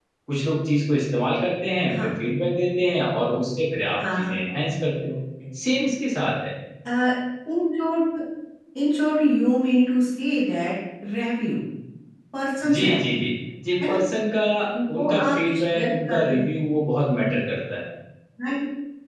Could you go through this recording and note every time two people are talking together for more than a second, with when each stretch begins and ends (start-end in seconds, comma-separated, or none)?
14.9-16.5